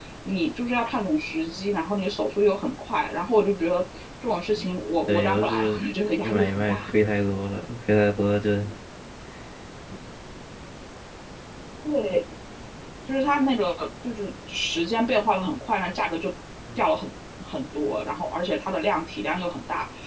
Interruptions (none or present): present